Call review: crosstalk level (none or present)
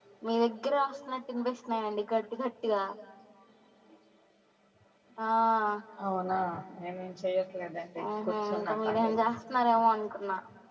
present